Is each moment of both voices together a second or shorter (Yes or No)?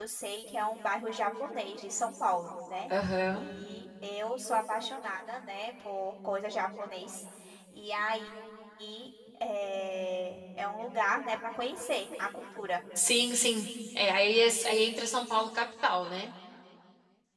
Yes